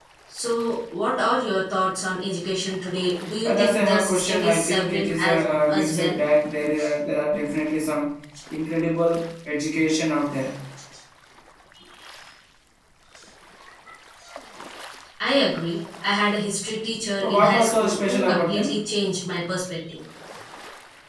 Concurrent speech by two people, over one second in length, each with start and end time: 3.4-6.2, 17.2-18.8

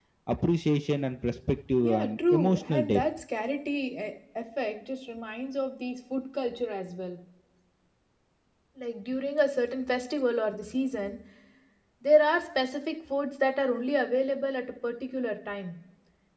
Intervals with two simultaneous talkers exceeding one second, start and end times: 1.8-3.0

